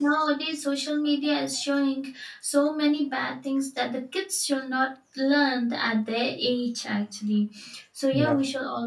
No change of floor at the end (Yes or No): Yes